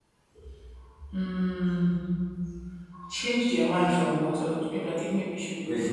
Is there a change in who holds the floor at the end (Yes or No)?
Yes